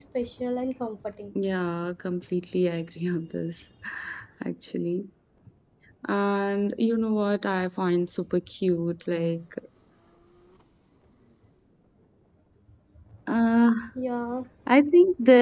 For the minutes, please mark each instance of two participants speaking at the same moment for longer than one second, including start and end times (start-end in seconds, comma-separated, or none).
none